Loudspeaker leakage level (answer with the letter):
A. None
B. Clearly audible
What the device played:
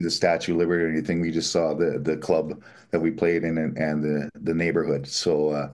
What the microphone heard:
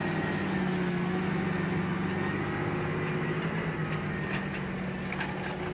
A